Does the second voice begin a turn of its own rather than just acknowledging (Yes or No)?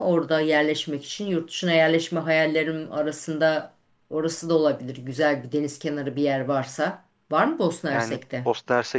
Yes